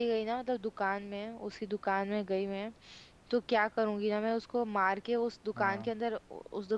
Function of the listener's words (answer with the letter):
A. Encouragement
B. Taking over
A